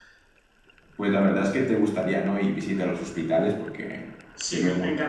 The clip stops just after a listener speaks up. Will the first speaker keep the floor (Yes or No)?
No